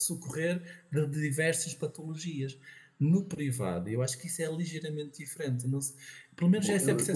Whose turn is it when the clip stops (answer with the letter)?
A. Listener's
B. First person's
A